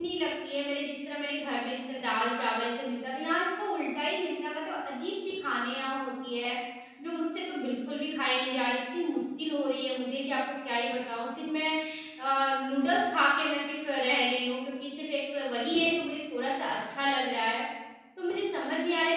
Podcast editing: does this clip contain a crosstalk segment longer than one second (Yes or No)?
No